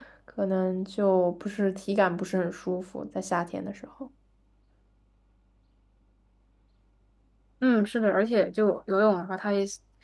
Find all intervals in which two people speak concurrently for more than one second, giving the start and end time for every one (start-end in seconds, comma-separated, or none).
none